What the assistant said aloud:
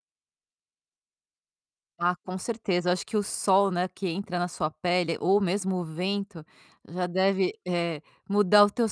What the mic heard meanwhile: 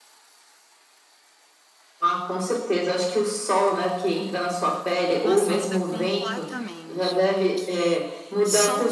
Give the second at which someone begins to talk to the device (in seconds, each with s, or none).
5.2 s